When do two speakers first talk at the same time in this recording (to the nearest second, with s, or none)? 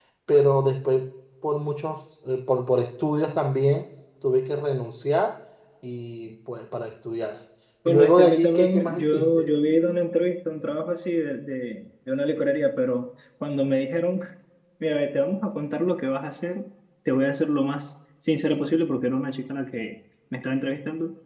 8 s